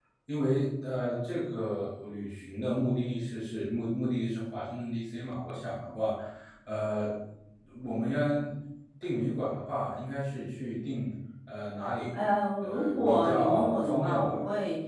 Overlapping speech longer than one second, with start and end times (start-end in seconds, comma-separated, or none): 12.6-14.4